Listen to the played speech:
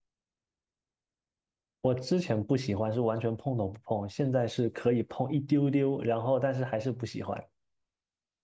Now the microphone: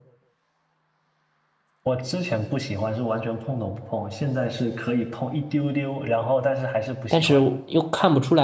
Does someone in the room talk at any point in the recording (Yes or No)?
Yes